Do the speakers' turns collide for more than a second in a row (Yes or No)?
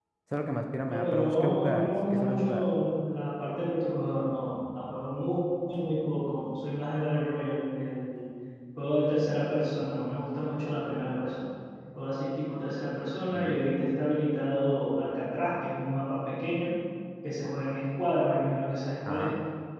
Yes